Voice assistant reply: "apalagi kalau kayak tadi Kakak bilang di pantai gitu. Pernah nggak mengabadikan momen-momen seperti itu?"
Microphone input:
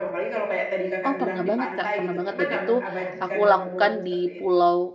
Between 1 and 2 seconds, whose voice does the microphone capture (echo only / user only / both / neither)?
both